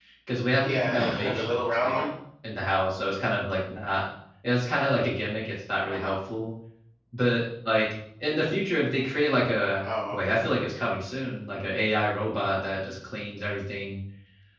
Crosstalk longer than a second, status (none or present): present